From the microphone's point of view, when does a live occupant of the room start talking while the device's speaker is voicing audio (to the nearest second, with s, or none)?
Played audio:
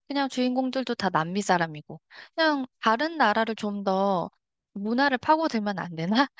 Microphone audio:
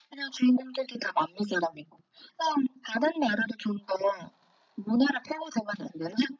none